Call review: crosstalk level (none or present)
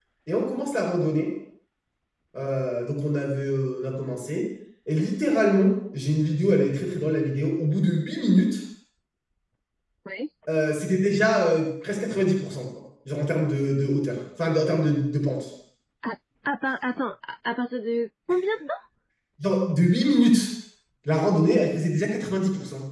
none